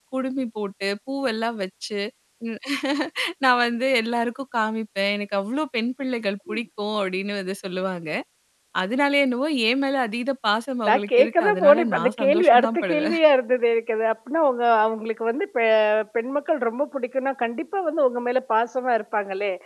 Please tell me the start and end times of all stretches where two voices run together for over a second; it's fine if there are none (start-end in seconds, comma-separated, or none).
10.9-13.2